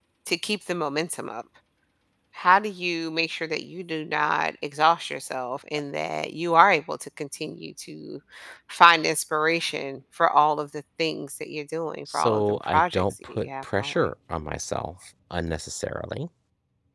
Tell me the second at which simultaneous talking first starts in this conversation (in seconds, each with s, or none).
12.1 s